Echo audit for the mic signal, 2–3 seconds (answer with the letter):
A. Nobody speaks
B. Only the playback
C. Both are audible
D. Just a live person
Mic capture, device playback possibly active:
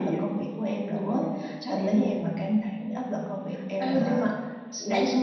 B